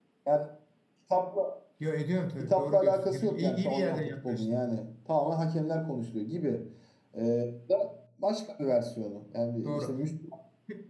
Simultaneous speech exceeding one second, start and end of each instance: 2.4-4.6

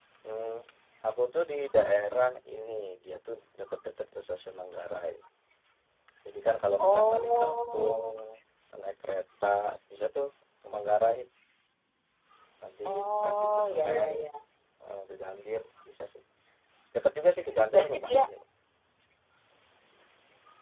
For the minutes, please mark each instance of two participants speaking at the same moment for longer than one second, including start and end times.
6.8-8.0, 12.8-14.1

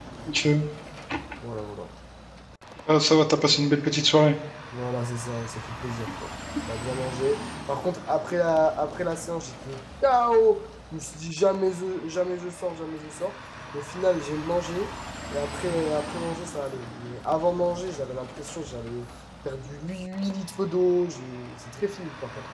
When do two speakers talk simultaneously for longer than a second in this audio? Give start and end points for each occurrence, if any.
none

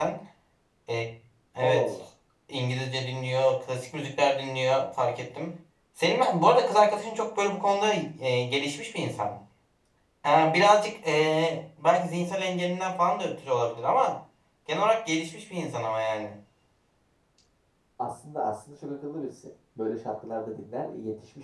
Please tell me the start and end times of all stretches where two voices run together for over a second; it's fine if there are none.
none

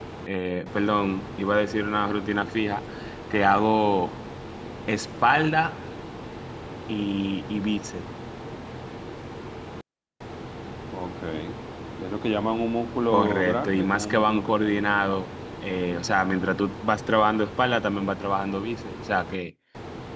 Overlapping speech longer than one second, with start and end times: 13.1-15.0

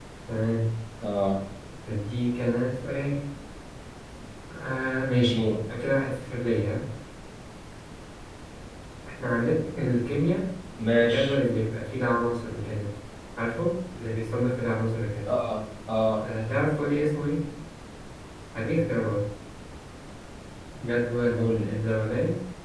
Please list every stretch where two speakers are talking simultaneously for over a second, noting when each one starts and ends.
none

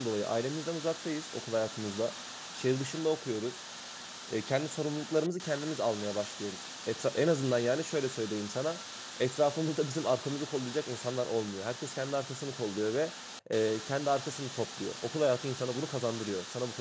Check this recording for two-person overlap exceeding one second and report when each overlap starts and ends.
none

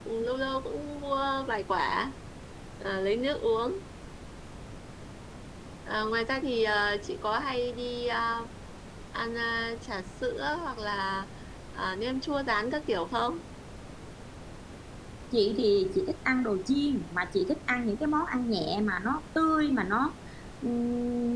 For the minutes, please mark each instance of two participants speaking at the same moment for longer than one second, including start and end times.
none

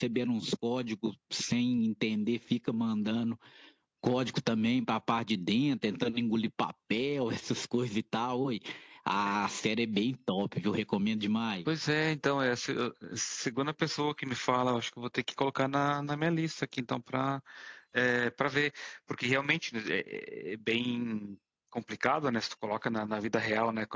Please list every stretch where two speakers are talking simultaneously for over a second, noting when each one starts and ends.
none

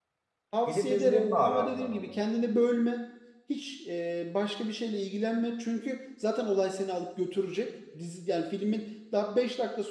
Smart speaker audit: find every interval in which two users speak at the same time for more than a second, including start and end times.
0.7-2.1

